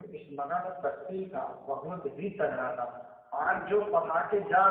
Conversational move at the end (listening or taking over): listening